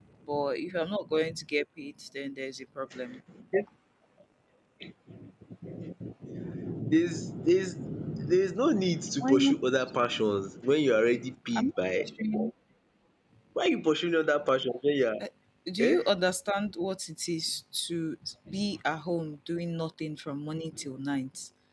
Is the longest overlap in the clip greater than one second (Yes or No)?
No